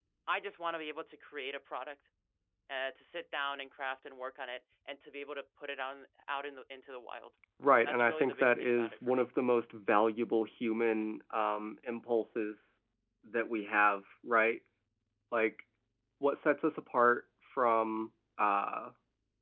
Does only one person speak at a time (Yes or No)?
No